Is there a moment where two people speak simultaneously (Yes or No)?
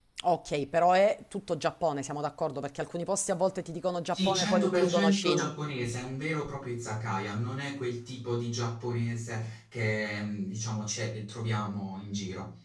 Yes